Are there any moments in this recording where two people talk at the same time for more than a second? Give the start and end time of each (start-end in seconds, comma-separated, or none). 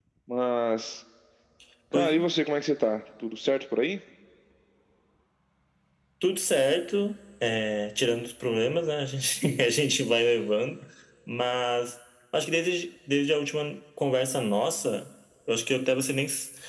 none